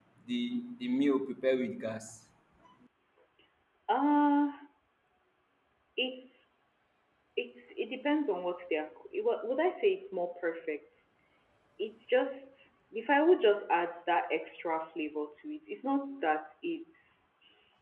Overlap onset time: none

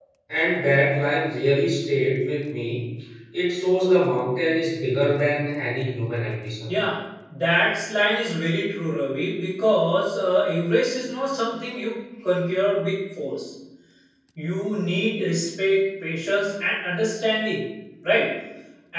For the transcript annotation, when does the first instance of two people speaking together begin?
none

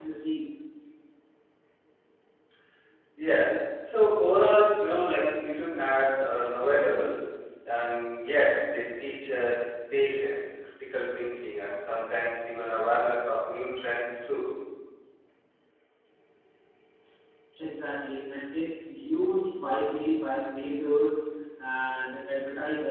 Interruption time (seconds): none

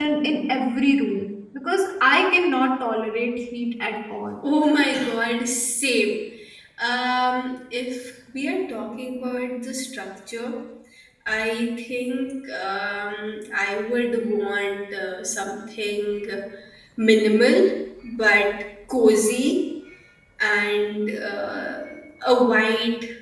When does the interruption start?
none

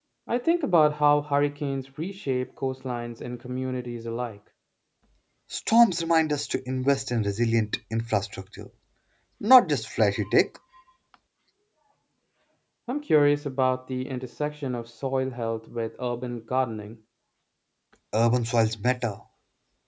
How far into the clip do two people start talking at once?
none

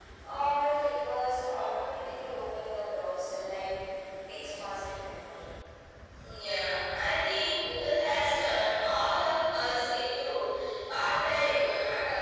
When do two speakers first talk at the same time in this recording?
none

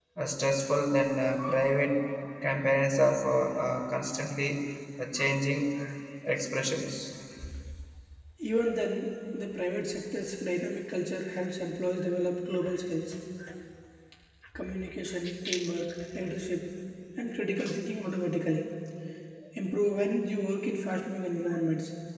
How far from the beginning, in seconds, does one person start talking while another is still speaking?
none

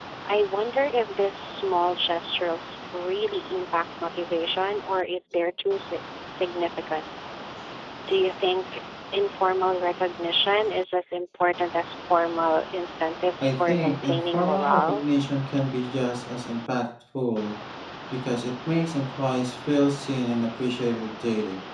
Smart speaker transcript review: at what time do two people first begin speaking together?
13 s

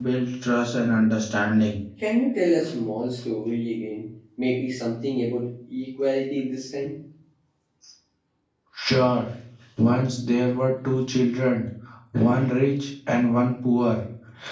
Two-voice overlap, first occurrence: none

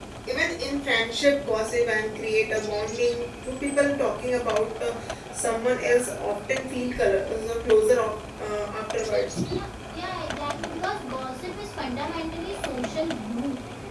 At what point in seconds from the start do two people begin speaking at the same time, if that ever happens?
none

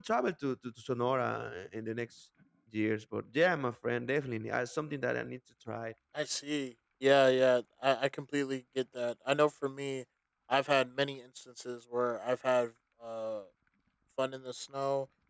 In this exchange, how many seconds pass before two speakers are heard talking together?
none

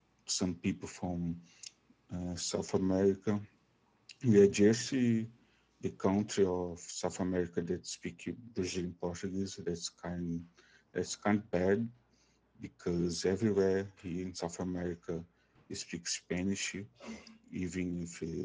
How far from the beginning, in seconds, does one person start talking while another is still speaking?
none

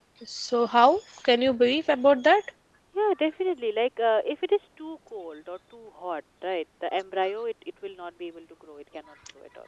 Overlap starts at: none

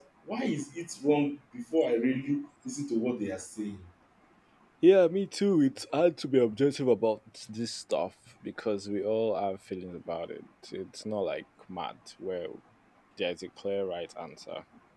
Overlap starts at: none

